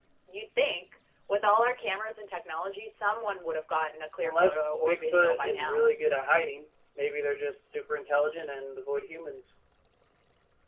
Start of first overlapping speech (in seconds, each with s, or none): 4.2 s